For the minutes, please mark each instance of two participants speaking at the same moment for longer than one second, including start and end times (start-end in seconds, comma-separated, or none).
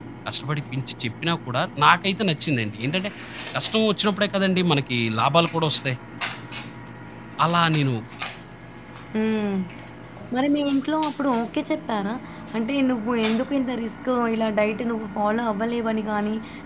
none